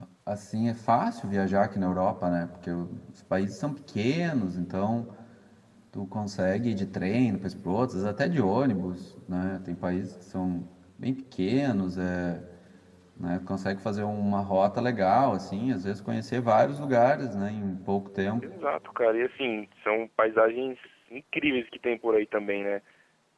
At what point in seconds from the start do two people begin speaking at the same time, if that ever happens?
none

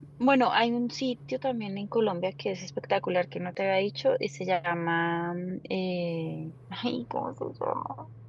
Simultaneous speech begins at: none

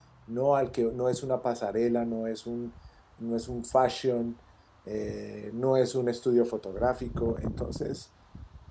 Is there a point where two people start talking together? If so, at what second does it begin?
none

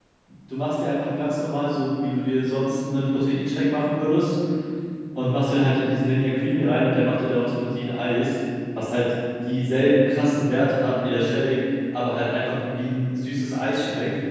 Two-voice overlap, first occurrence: none

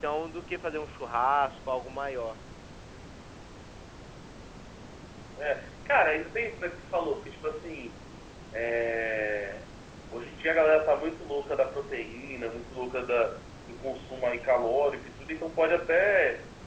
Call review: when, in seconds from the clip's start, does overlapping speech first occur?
none

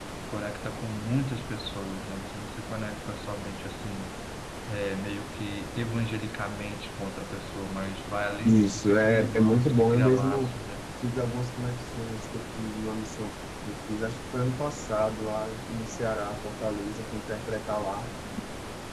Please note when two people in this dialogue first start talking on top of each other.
8.4 s

